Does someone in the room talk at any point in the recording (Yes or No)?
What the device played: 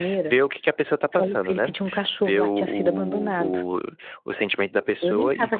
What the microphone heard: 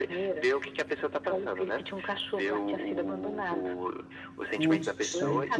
Yes